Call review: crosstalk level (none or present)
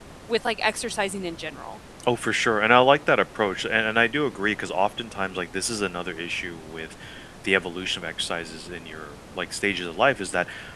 none